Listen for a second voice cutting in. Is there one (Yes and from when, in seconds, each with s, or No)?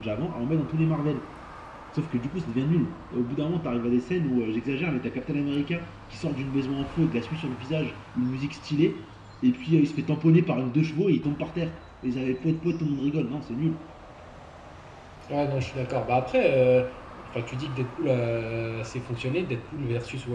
No